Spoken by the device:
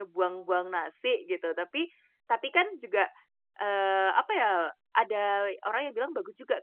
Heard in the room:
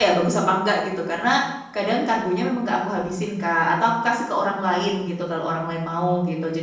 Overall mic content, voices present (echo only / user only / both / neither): user only